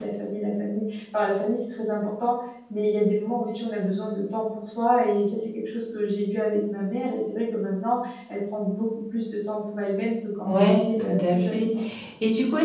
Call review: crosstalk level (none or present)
present